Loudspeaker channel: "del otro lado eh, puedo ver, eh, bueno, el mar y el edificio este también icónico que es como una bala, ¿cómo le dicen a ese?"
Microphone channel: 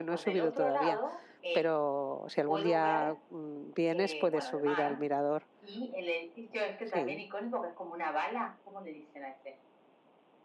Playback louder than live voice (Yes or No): No